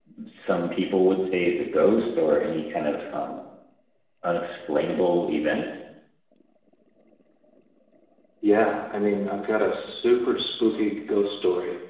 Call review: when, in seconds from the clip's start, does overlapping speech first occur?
none

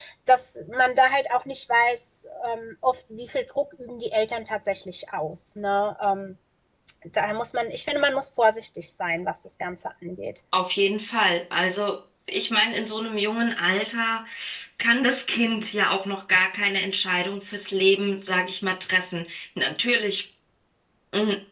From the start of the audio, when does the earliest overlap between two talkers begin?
none

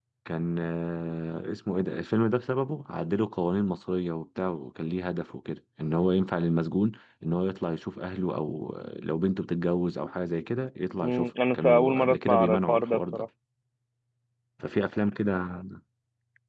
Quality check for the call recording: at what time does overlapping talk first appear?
11.0 s

